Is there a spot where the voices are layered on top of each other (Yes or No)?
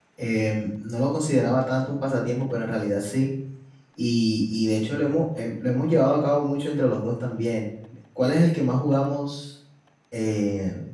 No